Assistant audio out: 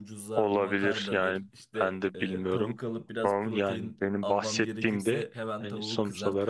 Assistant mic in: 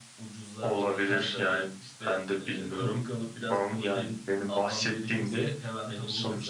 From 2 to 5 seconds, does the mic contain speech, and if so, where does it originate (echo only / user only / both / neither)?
echo only